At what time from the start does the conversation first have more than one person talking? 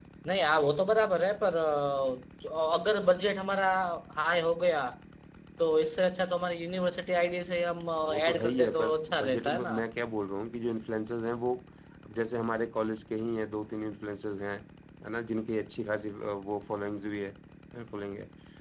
8.0 s

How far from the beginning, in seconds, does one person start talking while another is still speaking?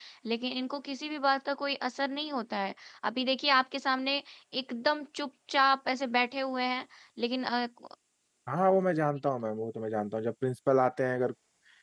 none

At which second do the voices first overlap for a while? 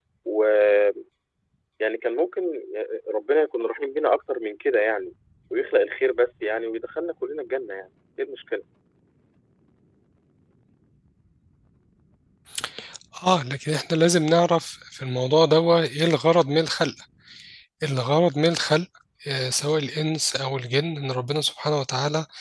none

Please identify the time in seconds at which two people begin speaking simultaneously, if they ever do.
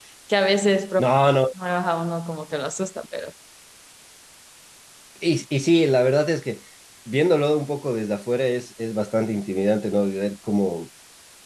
none

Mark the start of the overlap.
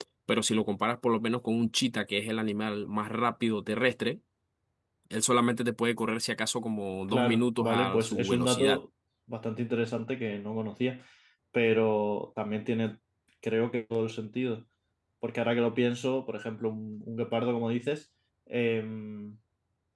7.1 s

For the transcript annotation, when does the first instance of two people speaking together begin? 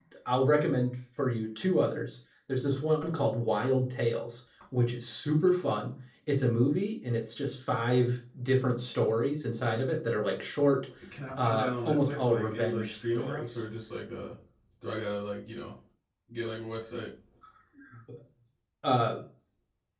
11.4 s

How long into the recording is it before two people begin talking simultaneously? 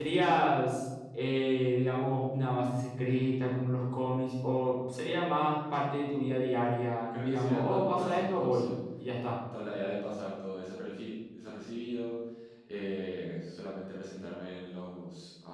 7.1 s

